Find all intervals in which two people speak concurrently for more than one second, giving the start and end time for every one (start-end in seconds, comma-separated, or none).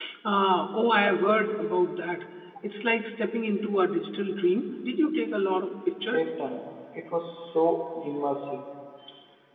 none